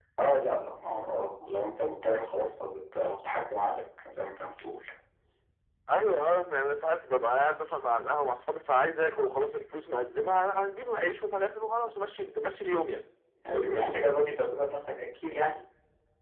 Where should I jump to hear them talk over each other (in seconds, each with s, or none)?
none